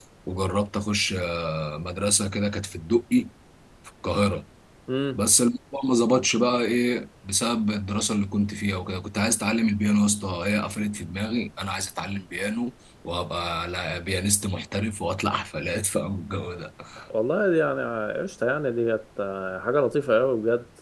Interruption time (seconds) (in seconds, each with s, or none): none